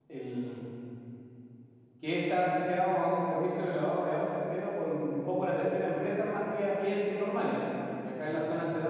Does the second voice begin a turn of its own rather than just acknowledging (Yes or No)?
No